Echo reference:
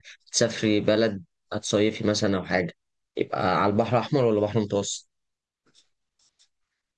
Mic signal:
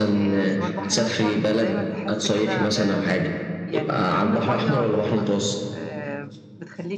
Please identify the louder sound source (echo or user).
echo